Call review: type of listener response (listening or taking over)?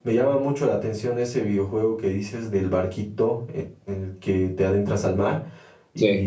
listening